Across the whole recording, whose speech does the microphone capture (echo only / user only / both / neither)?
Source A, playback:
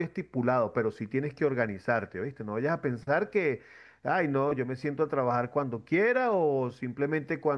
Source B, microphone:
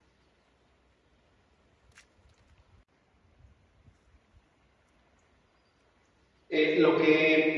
user only